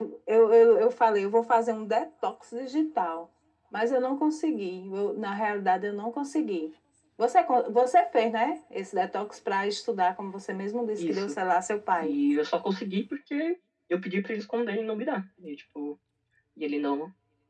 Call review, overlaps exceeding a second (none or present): none